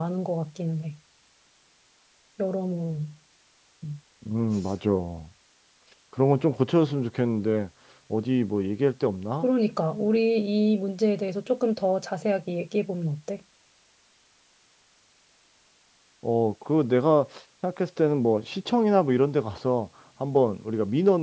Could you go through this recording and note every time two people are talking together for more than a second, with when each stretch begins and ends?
none

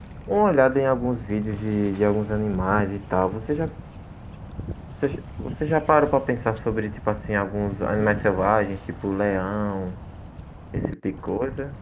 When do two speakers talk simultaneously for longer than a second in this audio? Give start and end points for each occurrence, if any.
none

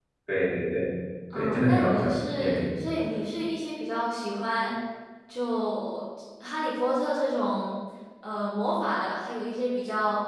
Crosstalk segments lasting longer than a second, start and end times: 1.4-2.8

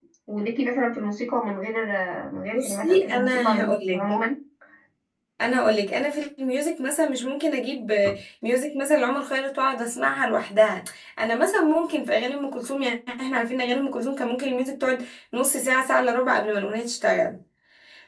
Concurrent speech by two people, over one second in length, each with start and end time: 2.5-4.0

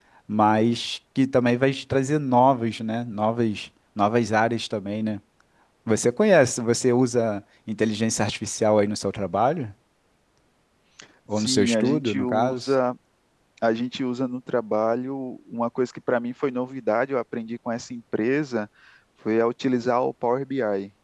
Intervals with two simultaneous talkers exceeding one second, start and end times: 11.4-12.8

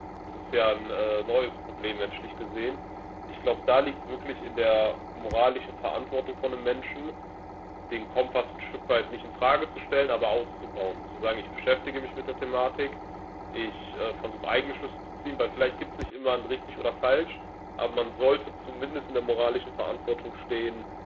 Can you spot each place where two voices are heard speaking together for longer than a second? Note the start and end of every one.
none

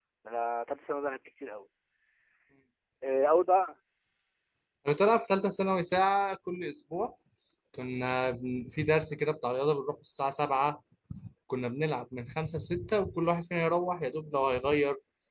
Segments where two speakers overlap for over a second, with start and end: none

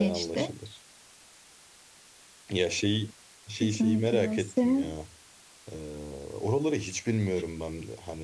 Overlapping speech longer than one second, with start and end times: 3.6-4.9

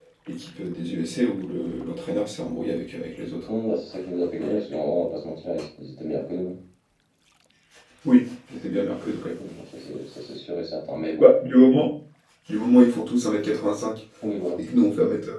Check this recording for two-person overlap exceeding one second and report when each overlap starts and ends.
none

